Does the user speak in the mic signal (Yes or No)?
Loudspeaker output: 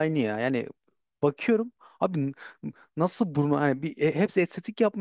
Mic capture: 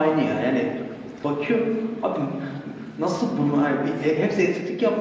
No